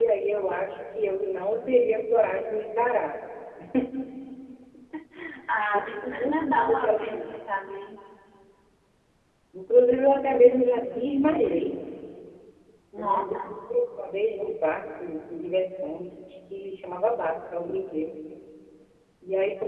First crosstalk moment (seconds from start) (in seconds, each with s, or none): 5.7 s